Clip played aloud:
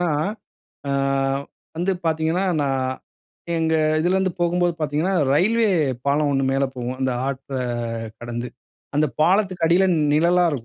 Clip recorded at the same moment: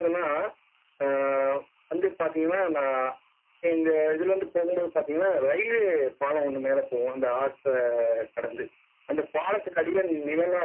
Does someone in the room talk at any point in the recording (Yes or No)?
No